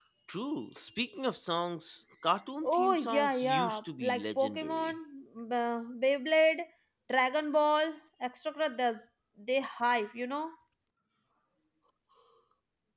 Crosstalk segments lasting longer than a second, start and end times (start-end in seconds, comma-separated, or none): 2.6-4.9